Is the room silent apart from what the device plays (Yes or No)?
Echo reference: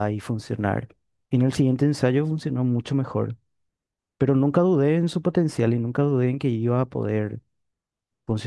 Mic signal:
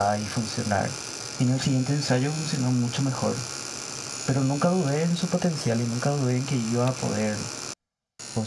Yes